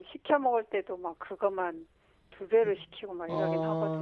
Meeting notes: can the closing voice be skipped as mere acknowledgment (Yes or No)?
No